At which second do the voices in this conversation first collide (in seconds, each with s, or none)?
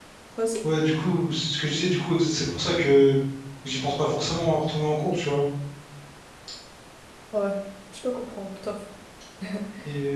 none